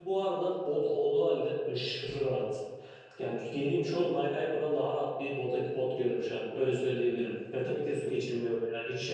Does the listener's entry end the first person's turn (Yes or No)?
No